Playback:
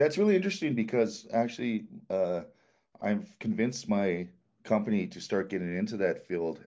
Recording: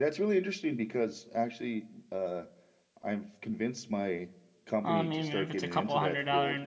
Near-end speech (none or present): present